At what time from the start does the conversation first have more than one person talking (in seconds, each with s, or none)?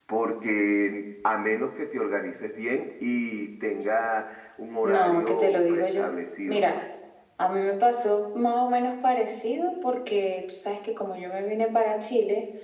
4.8 s